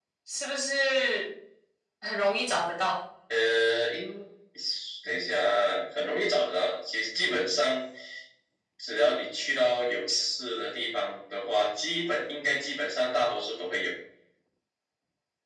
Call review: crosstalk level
none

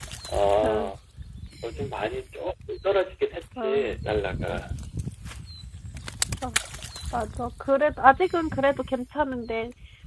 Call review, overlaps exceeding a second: none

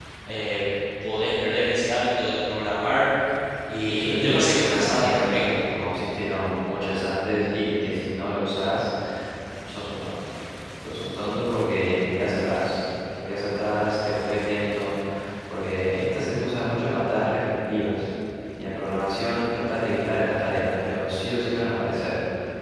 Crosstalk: present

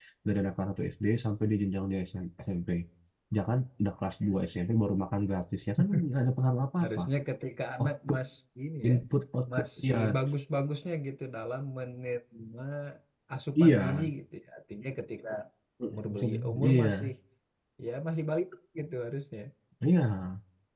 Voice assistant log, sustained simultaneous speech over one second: present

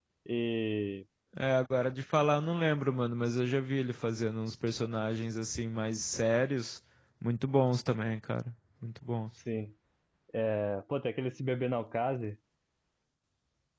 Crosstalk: none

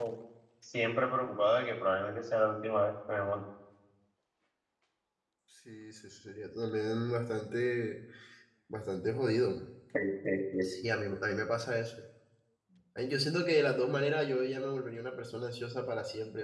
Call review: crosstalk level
none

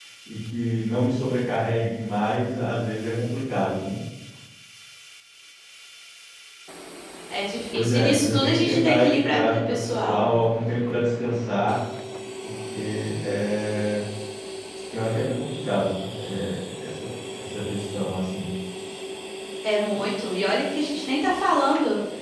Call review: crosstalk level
present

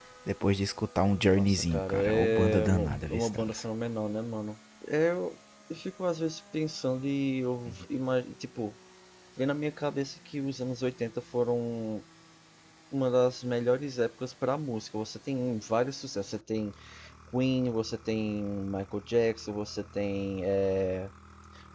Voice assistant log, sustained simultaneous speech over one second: present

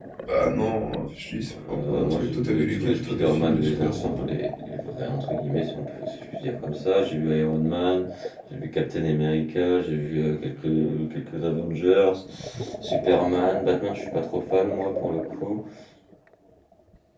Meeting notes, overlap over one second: present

